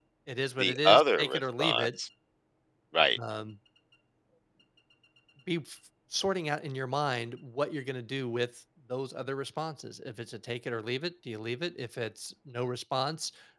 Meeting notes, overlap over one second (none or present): present